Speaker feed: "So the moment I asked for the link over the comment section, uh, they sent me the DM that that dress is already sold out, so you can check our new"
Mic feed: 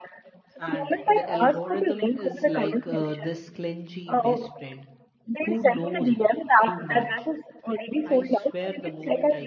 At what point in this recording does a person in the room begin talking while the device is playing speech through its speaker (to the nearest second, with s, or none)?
1 s